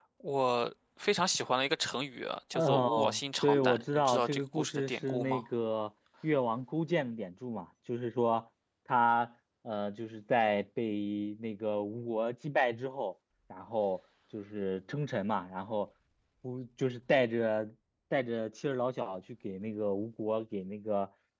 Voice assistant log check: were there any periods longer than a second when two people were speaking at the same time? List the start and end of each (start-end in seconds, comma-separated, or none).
2.5-5.4